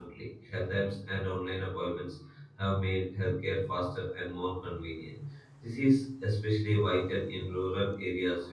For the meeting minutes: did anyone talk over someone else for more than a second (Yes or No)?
No